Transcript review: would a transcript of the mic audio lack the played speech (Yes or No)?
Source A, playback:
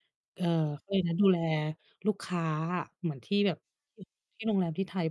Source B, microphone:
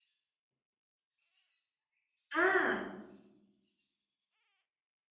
Yes